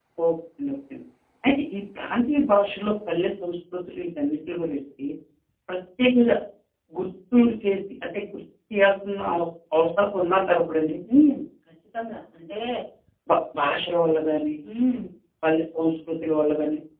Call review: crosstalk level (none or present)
none